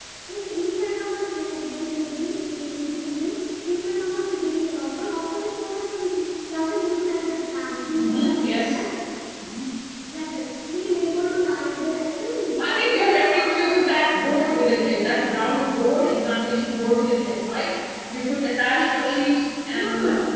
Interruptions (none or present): present